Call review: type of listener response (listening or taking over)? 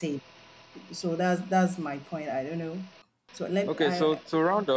taking over